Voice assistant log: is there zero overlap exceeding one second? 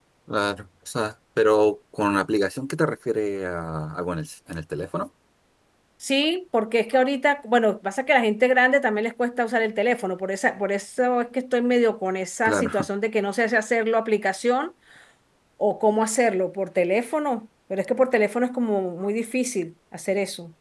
Yes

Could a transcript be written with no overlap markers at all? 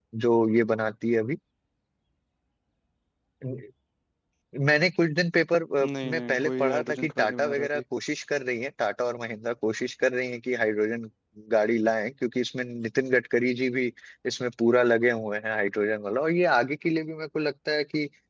No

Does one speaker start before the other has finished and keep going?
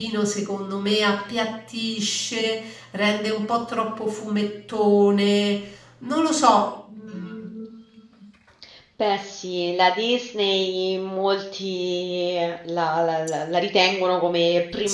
No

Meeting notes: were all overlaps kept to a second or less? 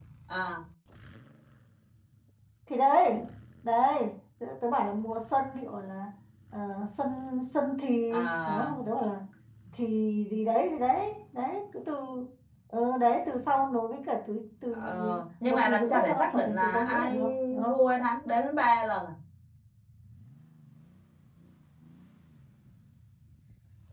No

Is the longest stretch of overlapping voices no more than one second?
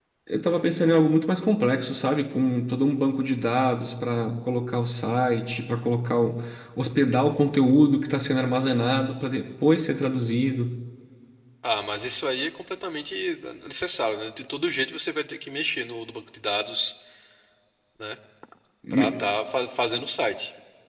Yes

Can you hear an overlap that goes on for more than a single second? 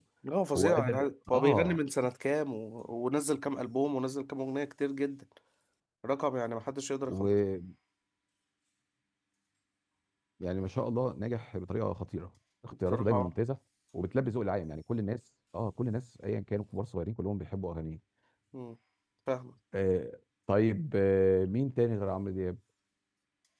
Yes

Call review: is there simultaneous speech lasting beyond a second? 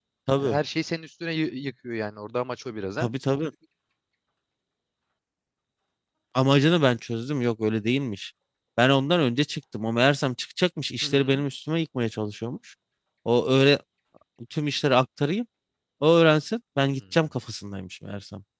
No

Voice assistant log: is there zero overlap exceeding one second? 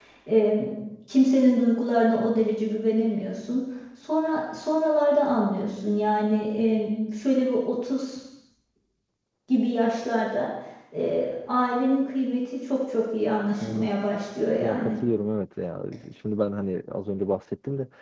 Yes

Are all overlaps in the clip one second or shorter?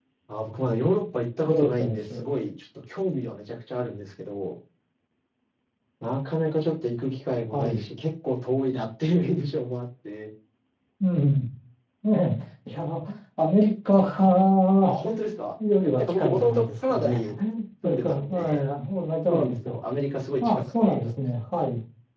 No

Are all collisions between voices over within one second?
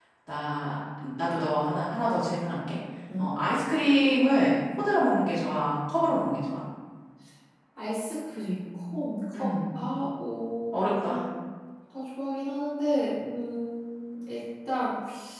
Yes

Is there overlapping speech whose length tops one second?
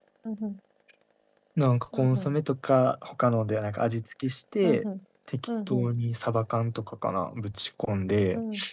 No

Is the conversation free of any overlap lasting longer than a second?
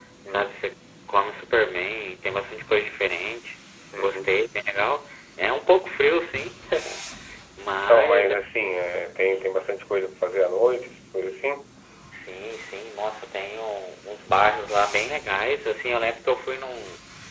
Yes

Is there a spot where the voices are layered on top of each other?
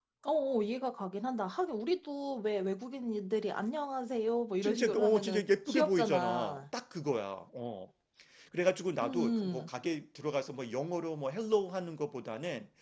Yes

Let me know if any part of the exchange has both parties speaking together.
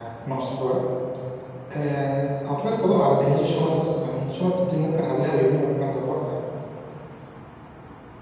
No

